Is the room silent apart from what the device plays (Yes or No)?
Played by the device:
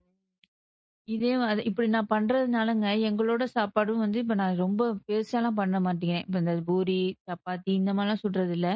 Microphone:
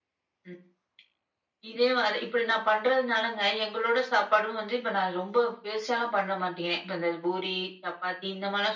Yes